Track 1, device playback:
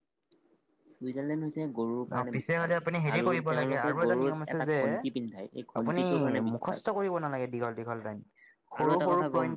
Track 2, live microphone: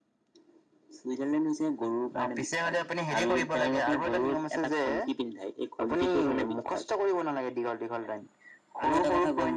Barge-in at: none

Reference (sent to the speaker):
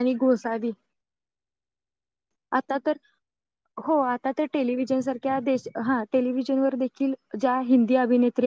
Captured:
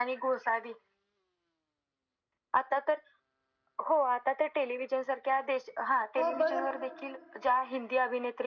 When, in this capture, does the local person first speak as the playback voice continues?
6 s

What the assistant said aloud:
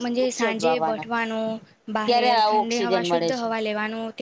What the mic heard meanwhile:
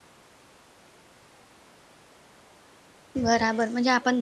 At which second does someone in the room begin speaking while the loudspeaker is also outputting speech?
3 s

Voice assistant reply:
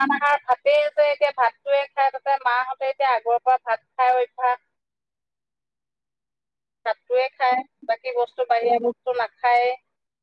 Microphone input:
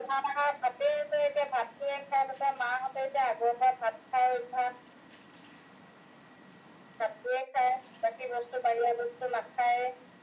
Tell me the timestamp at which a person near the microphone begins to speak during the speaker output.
none

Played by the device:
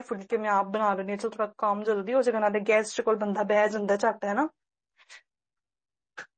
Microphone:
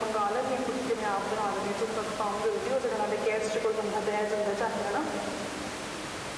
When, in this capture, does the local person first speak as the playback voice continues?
none

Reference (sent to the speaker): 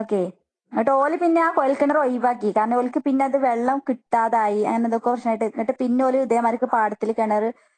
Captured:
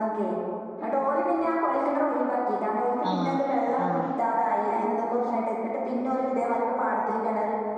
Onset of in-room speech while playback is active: 3 s

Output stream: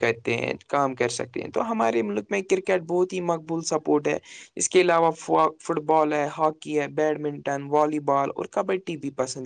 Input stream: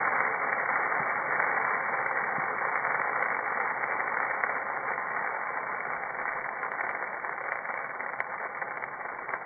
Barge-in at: none

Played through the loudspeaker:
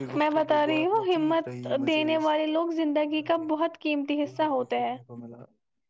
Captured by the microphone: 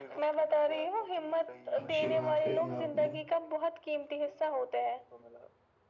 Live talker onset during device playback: 2 s

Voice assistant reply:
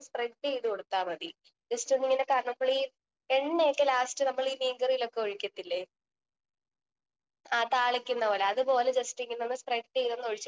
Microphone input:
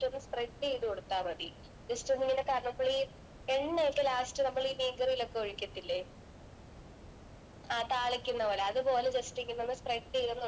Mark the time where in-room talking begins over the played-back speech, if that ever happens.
none

